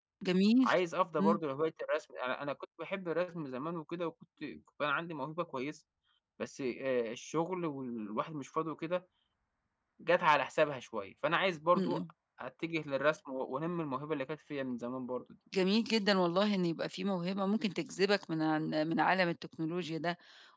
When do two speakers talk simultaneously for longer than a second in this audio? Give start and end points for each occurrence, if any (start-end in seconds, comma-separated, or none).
none